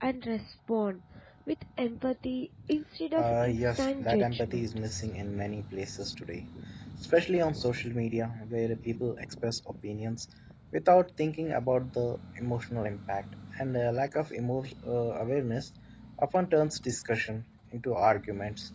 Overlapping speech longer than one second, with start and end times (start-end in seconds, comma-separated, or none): 3.1-4.6